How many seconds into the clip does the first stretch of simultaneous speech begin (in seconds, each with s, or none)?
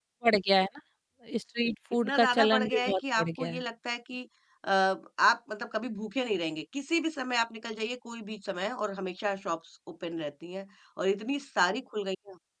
1.9 s